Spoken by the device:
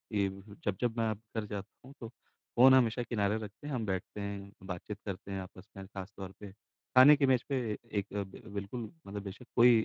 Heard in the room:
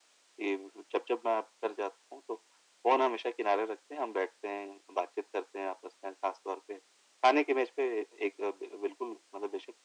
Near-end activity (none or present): none